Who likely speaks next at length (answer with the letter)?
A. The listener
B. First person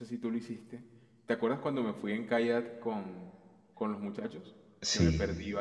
A